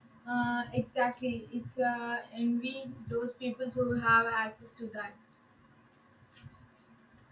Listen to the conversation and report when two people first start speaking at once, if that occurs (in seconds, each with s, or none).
none